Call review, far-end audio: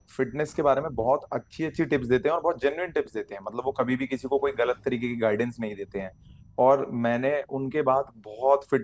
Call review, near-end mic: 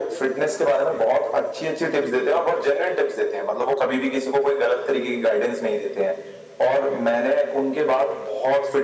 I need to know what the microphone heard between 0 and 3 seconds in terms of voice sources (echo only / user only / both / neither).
echo only